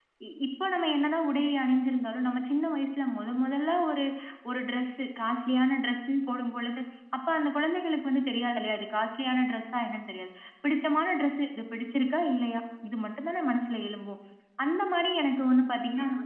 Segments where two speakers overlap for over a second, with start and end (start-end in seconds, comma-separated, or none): none